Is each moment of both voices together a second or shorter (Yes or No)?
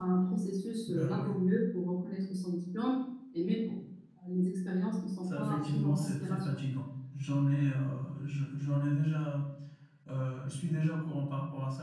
No